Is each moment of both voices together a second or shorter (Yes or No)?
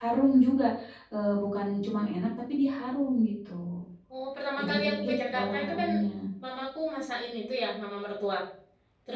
No